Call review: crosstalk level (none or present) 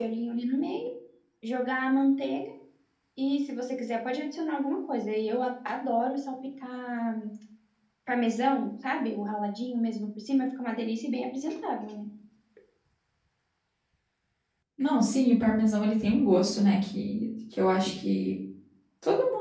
none